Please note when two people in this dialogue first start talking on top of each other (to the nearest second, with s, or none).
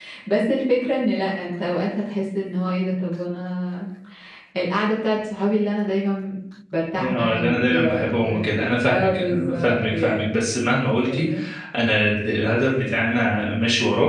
7 s